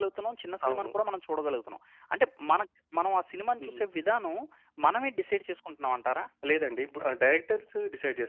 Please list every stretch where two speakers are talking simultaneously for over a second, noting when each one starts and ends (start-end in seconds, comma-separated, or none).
none